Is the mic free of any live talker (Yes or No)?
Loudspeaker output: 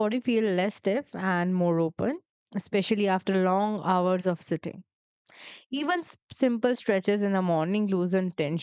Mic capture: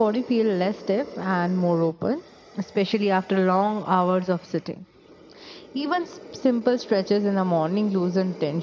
Yes